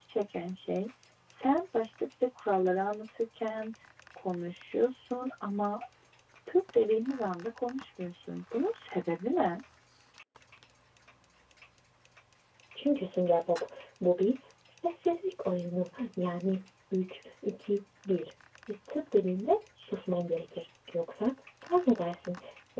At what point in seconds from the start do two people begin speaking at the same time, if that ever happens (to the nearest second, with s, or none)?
none